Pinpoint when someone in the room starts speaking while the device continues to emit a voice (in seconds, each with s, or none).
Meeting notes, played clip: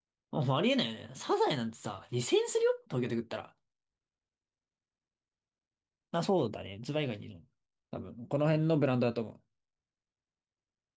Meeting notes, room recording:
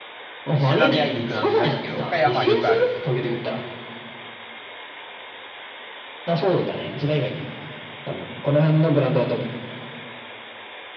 0.6 s